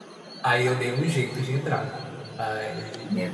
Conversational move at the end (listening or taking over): listening